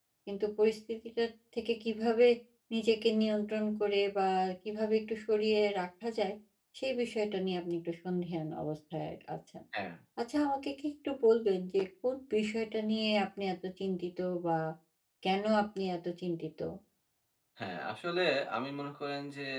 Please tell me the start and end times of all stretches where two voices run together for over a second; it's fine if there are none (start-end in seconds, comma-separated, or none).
none